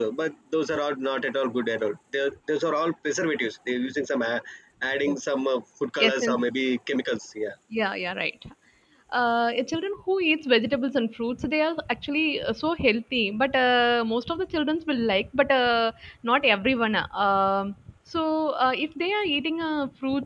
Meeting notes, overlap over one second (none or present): none